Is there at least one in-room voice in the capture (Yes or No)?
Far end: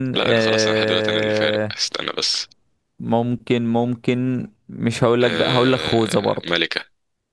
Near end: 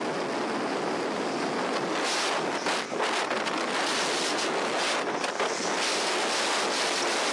No